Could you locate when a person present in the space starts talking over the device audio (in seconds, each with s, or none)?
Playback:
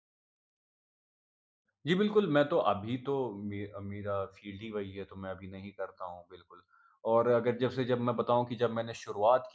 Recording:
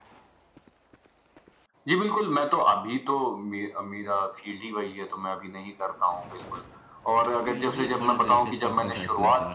7.4 s